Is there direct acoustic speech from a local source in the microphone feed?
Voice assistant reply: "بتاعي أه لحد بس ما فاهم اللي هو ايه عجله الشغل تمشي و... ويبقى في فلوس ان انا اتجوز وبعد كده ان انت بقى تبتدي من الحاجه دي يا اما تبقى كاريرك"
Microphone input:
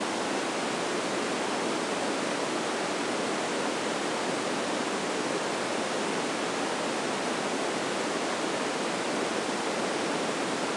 No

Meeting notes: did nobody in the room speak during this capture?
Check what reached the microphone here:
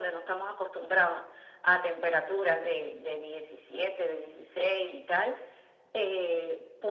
Yes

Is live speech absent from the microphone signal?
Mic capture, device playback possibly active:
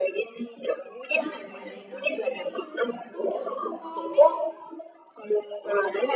No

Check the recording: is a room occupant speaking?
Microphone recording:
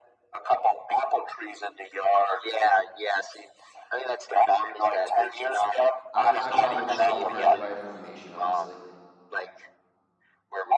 Yes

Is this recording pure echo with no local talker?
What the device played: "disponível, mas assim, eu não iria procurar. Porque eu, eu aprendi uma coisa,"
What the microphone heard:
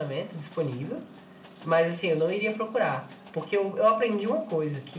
Yes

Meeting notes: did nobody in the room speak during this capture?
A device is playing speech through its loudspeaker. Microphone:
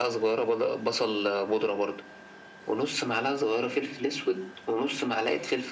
Yes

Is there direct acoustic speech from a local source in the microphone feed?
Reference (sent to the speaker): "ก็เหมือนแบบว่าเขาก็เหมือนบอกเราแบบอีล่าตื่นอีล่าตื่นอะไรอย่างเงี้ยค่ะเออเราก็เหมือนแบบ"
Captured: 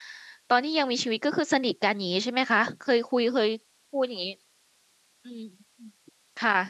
Yes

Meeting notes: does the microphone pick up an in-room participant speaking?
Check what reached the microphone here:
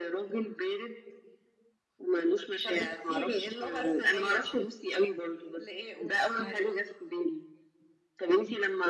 No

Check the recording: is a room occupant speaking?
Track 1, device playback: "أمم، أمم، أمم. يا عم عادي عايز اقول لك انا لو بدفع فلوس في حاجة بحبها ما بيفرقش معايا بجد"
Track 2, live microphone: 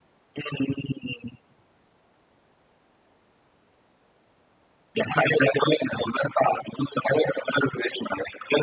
No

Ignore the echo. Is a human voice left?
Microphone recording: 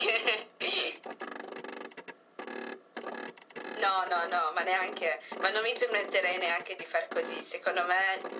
No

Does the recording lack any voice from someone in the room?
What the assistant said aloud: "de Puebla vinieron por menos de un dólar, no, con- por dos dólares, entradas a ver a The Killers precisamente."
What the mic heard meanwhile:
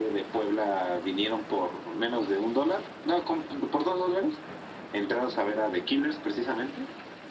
Yes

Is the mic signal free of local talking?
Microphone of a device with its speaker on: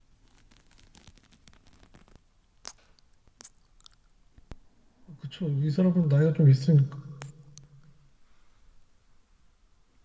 No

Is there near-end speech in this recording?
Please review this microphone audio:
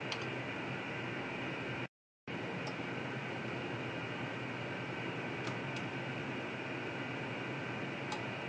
No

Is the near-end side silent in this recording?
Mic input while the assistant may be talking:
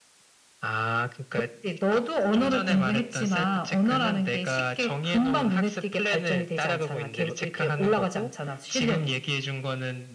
Yes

